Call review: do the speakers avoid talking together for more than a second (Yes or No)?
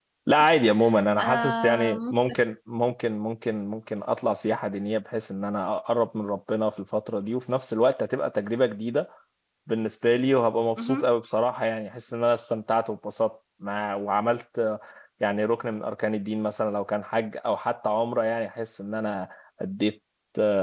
No